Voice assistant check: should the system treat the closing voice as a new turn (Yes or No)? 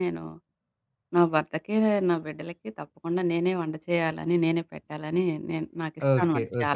Yes